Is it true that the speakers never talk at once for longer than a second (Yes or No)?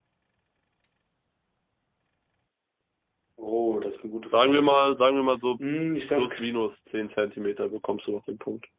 Yes